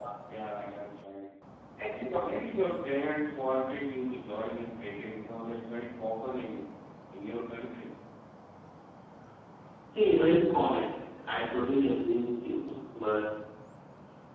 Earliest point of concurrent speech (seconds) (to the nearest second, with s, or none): none